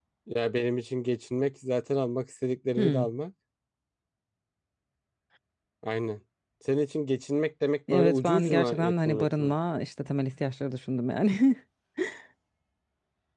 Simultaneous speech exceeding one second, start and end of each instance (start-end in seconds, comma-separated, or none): 7.9-9.5